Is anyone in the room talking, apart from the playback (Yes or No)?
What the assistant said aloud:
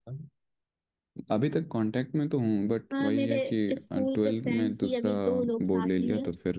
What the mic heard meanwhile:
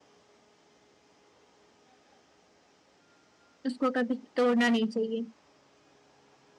Yes